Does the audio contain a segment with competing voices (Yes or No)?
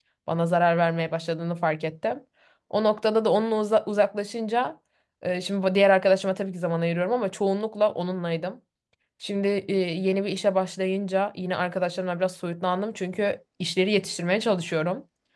No